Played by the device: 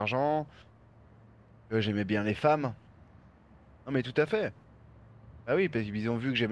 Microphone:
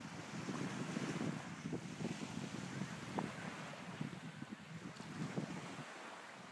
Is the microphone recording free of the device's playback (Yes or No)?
Yes